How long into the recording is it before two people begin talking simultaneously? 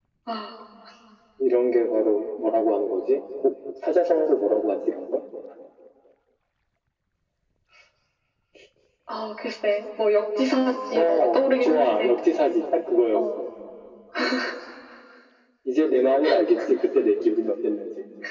10.9 s

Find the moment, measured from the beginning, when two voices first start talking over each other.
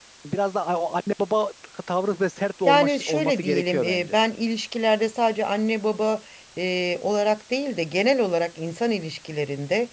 2.7 s

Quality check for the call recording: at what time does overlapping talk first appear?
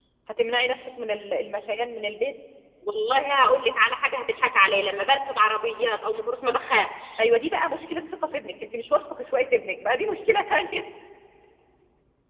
none

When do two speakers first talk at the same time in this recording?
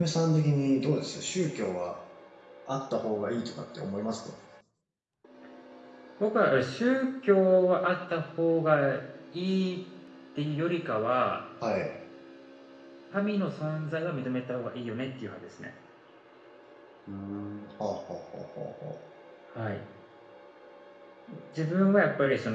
none

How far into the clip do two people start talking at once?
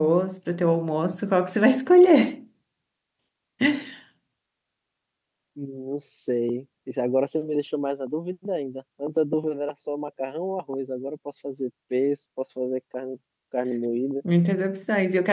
none

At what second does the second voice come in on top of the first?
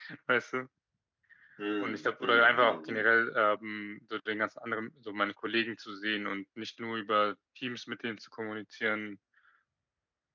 1.8 s

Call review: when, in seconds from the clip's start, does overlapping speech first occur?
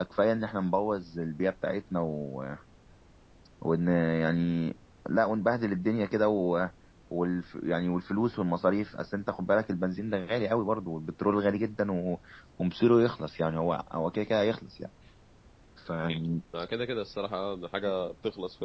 none

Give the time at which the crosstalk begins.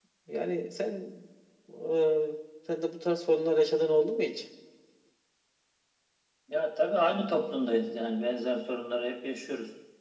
none

